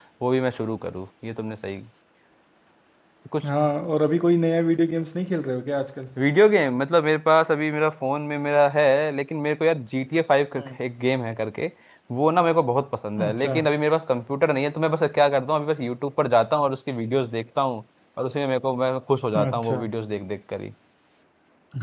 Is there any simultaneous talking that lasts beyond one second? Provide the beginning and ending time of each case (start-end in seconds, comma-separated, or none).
none